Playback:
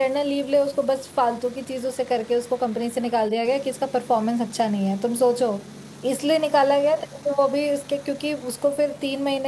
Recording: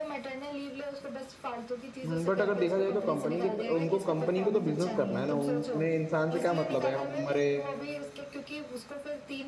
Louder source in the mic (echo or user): user